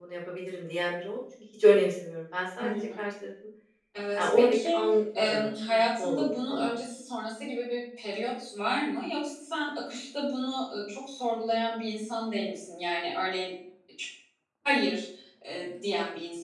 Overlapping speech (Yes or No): Yes